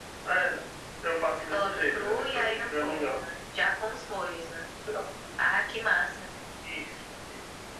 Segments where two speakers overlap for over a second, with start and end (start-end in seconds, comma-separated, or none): 1.4-3.3